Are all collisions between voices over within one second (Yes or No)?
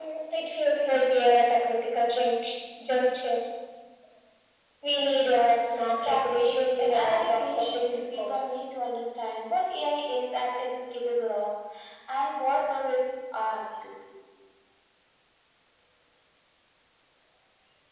No